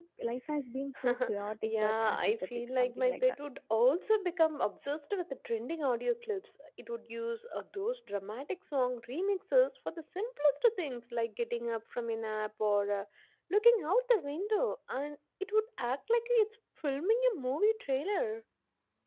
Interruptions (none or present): present